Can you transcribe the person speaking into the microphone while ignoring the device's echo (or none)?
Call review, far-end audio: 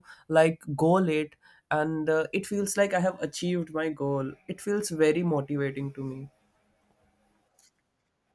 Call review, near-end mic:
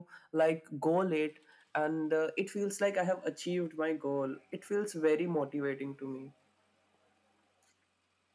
none